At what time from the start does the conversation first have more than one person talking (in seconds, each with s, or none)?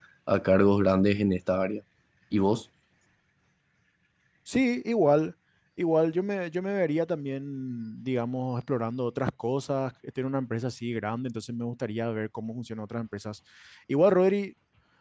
none